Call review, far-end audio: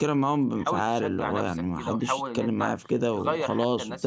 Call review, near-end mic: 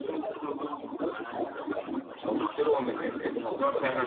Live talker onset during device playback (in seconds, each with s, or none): 2.2 s